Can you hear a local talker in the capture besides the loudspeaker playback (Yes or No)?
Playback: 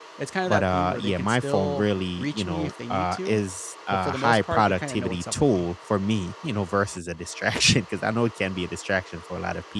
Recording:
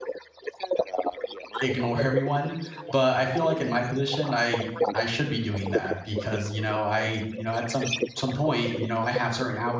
Yes